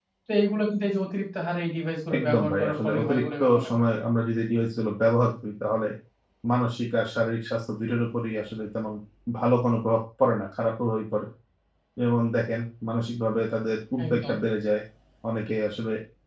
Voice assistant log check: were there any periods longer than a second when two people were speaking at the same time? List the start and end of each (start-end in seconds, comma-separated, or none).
2.2-3.9